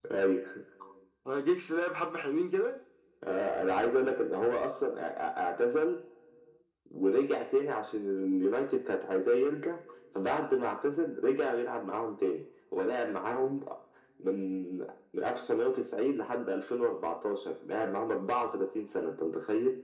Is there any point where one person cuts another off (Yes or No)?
No